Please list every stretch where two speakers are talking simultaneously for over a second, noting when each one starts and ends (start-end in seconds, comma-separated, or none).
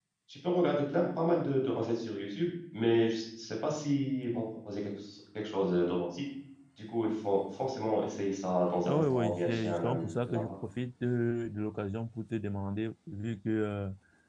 8.9-10.5